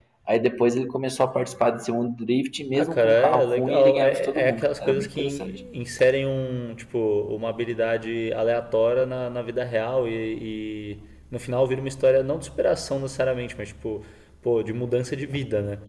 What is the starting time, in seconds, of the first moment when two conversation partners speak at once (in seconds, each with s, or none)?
2.7 s